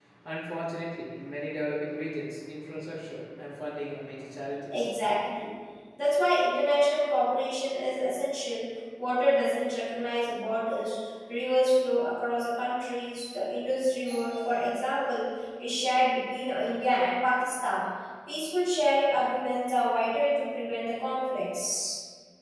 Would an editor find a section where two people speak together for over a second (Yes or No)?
No